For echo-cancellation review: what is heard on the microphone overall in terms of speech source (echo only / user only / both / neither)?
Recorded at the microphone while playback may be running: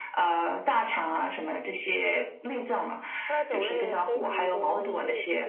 both